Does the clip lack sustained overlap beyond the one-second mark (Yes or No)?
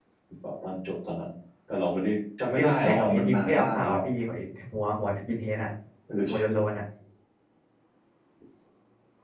No